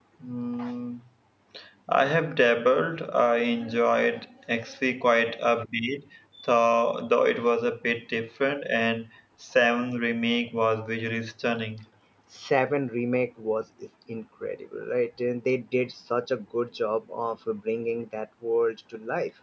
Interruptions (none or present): none